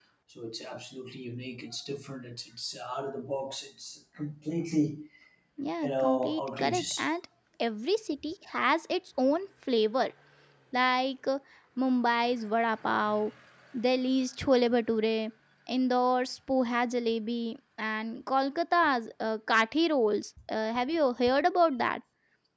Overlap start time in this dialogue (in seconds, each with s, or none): 5.8 s